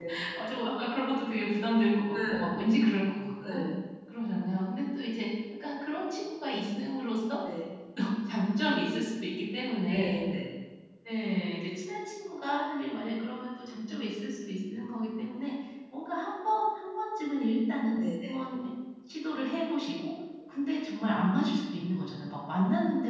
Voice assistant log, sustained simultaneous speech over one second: none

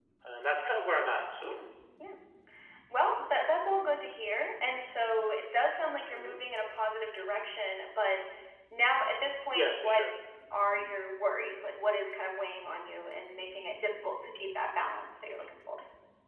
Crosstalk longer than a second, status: none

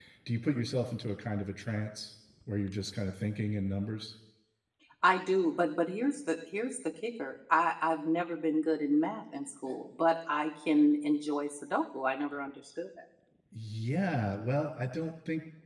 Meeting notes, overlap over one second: none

